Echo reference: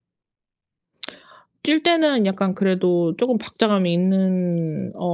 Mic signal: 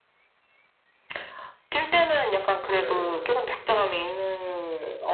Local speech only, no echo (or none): 네.